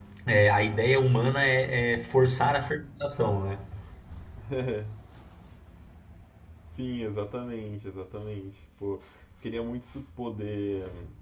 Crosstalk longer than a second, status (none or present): none